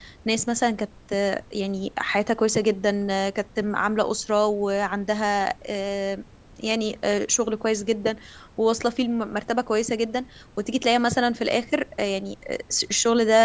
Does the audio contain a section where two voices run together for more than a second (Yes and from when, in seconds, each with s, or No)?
No